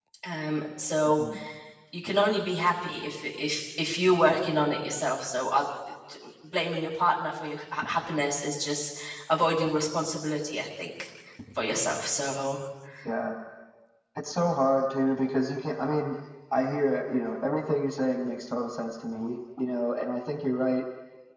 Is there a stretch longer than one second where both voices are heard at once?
No

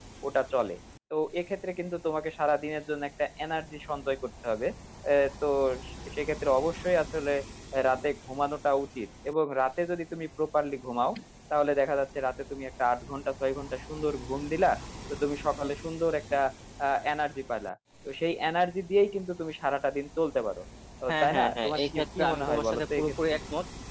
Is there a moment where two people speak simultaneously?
Yes, from 21.1 s

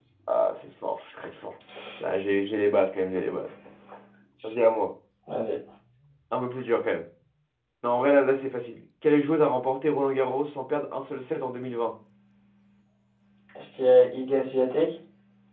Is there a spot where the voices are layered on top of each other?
No

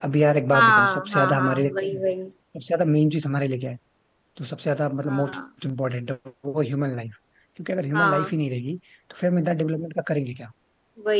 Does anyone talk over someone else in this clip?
Yes, from 0.5 s

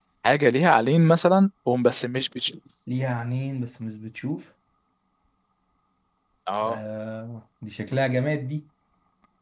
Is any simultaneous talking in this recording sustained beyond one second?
No

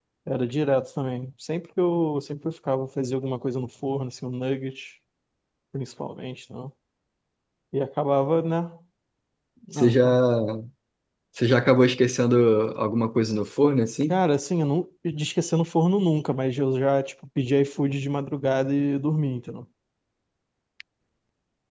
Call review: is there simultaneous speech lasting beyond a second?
No

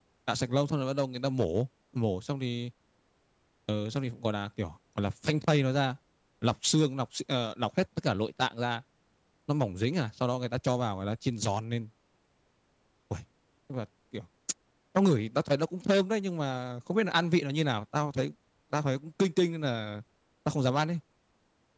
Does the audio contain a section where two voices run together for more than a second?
No

